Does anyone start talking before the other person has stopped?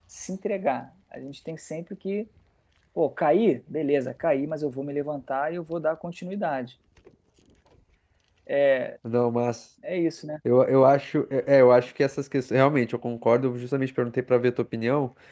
No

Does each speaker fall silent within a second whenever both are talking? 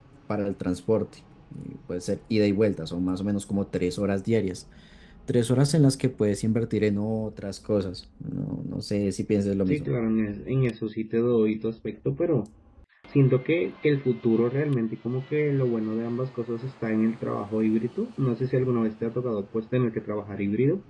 Yes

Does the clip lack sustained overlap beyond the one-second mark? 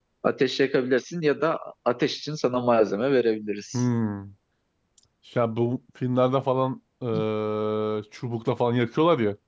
Yes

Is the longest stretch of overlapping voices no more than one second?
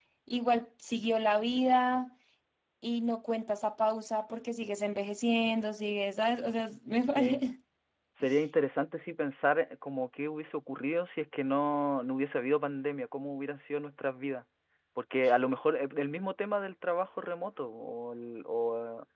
Yes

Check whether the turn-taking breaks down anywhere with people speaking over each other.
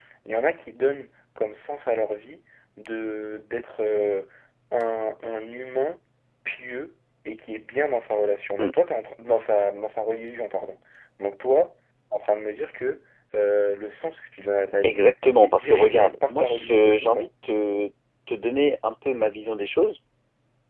Yes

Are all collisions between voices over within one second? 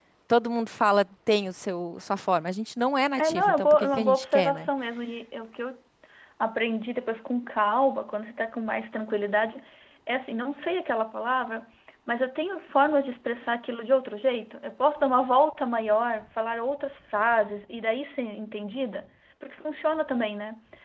No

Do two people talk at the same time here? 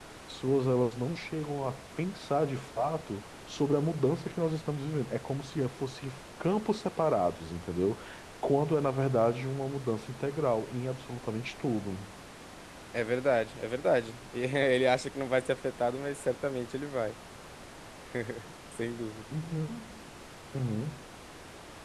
No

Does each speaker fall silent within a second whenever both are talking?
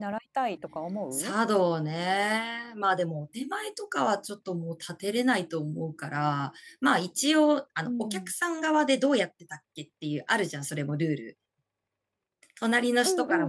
Yes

